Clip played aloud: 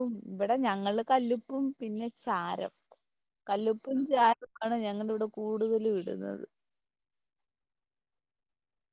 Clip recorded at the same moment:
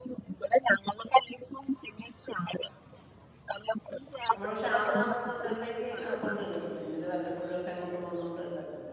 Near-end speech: present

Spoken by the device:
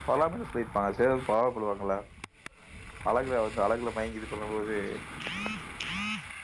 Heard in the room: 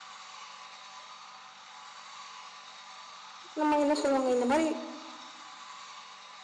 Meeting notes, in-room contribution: present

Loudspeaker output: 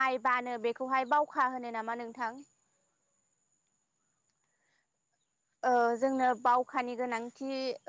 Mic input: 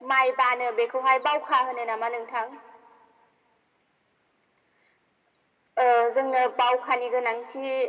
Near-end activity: none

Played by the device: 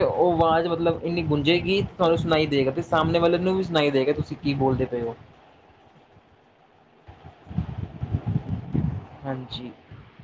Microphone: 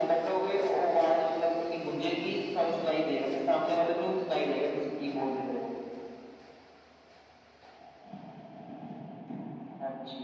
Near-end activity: none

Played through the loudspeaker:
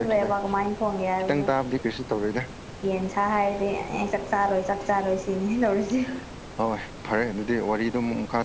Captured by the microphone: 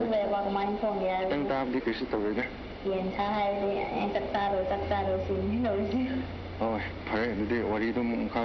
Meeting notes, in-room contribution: none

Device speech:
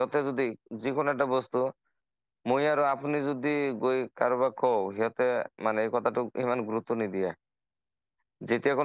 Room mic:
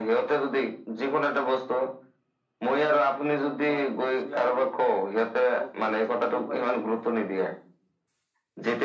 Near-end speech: present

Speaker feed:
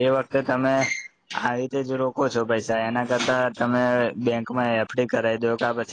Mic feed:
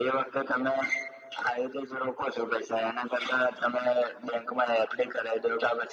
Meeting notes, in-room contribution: none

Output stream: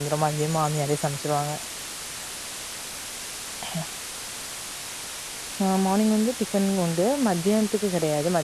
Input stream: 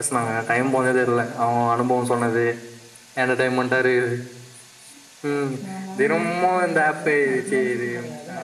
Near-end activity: present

